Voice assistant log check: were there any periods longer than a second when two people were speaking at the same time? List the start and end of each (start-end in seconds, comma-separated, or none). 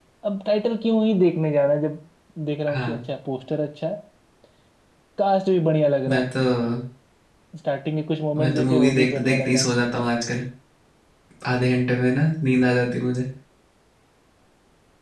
8.4-9.7